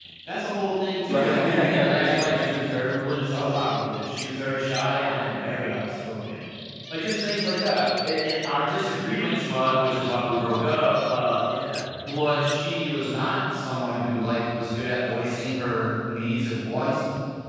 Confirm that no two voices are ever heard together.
No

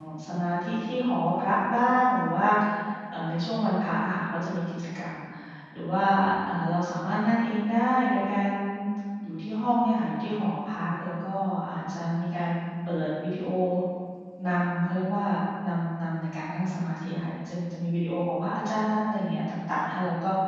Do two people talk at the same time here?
No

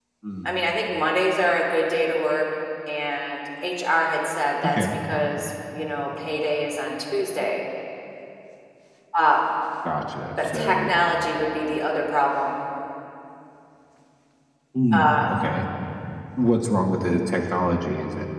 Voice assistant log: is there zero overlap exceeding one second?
Yes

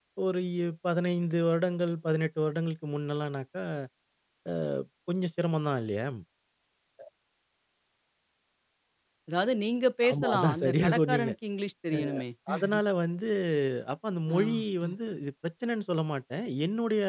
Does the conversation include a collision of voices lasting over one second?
Yes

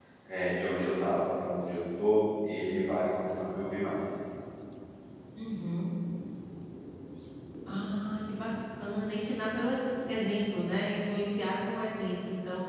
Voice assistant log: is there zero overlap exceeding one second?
Yes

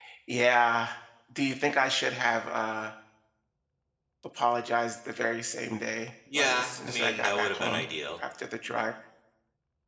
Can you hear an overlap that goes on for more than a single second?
Yes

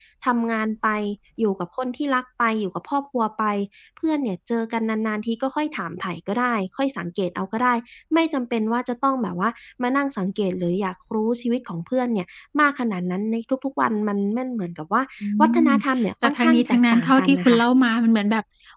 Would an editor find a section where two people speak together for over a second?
Yes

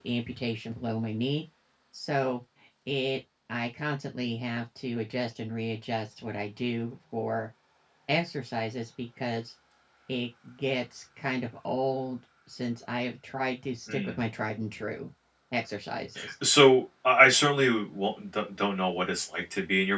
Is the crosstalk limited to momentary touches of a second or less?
Yes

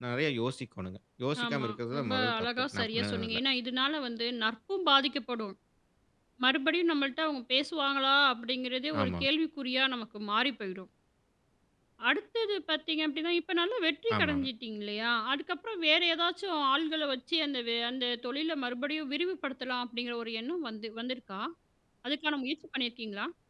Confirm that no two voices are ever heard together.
No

